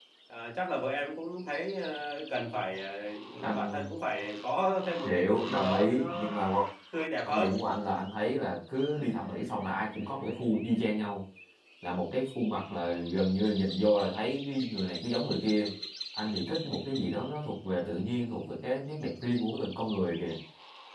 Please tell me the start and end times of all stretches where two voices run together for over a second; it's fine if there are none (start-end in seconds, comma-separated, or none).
5.0-6.3